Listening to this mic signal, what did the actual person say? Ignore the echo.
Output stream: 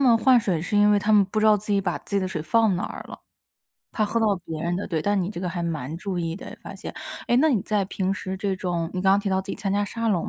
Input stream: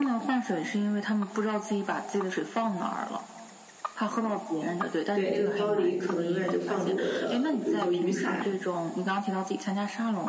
对。那个包里可能永远就放着我的比如说雨伞，

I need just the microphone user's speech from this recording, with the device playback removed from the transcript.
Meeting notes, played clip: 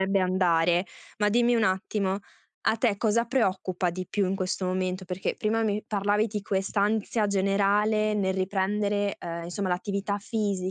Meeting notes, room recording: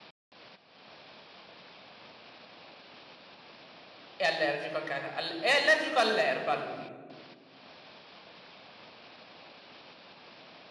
è allergico anche a ca al è allergico all'erba lui.

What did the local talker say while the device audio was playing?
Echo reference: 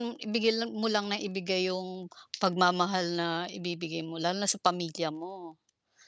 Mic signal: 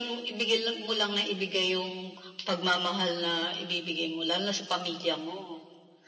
none

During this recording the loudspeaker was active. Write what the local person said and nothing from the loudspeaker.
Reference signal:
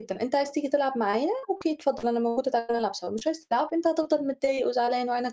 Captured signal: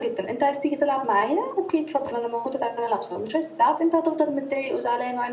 none

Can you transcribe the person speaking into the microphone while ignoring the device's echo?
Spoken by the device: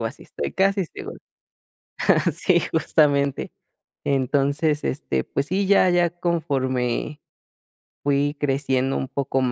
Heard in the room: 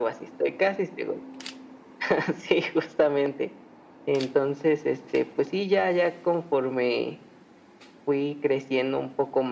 none

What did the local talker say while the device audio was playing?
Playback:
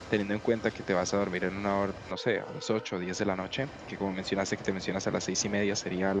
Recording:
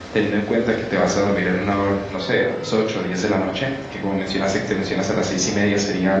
none

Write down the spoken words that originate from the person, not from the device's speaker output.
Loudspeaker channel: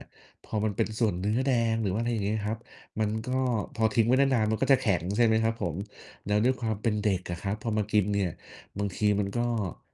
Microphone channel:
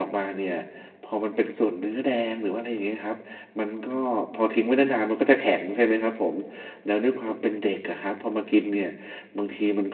none

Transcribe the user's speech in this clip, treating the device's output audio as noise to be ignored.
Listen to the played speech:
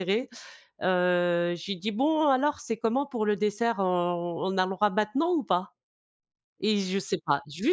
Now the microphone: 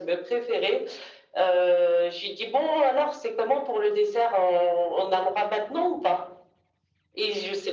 none

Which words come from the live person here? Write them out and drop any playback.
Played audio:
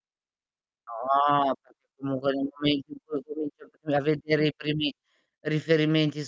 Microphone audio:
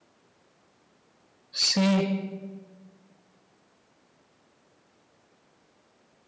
Sì.

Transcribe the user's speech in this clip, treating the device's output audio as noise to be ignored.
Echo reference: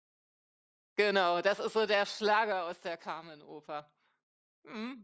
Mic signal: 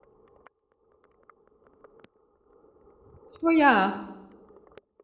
Oh ja.

